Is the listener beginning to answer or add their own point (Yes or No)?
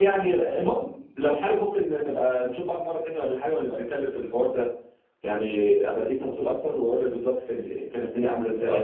Yes